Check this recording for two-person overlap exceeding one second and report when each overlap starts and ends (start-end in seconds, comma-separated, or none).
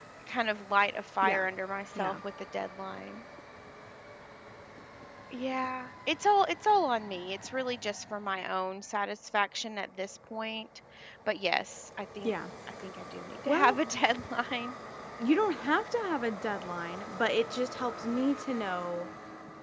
none